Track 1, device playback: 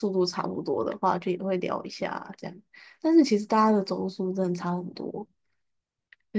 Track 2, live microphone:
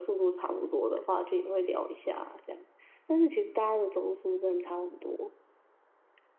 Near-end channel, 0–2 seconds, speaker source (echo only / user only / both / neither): echo only